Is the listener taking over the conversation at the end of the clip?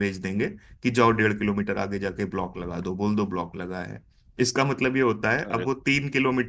No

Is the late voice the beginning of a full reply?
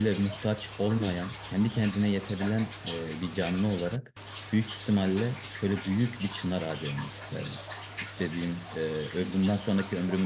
No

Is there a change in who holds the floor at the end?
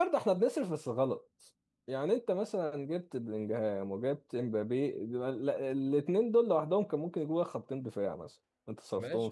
Yes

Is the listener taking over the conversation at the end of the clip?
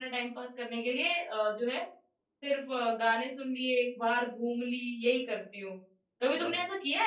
No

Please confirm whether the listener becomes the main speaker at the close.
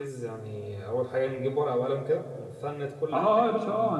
Yes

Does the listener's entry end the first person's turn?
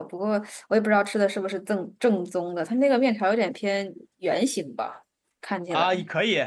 Yes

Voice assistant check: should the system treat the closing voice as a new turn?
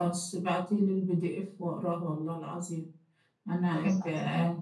No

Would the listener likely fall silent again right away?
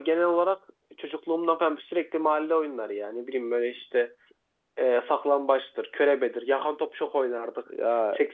Yes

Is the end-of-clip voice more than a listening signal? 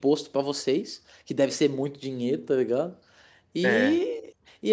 No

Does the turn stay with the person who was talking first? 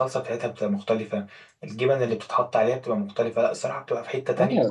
No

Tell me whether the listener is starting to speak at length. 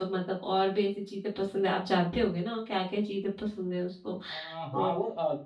Yes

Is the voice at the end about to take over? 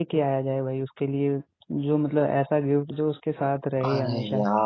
Yes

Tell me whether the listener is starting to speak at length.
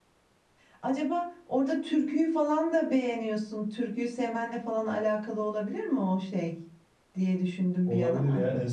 Yes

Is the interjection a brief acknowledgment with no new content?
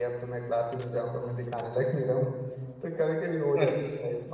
Yes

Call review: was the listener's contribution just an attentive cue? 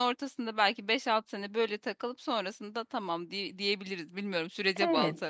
No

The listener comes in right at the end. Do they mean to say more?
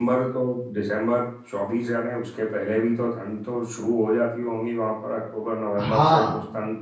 Yes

